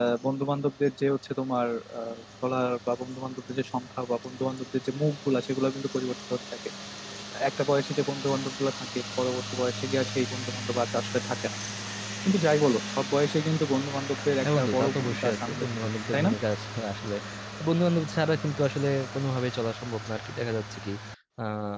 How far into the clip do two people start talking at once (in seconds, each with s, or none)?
14.4 s